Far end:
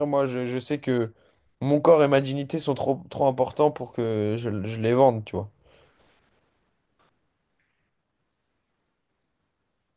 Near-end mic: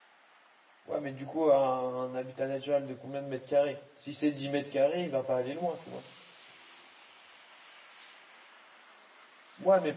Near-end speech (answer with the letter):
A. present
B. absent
A